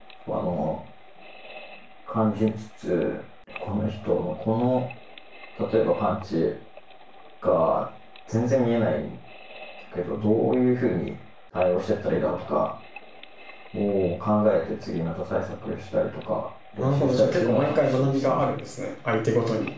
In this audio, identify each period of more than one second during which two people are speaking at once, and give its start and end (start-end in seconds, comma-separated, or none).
16.8-18.5